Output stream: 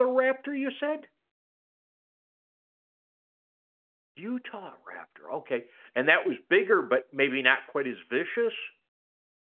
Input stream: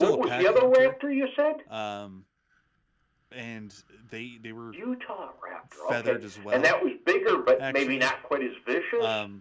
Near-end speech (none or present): present